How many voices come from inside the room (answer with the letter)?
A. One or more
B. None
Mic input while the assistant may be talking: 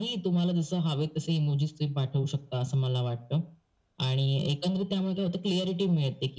B